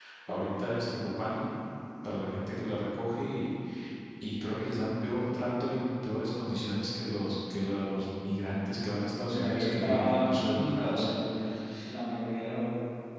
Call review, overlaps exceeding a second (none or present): present